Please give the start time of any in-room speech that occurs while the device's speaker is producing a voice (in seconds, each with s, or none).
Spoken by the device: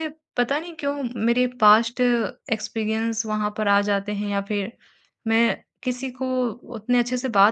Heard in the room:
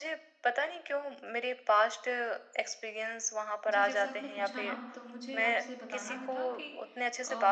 3.7 s